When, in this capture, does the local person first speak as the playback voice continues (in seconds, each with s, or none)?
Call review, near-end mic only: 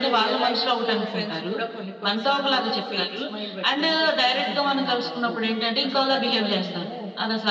none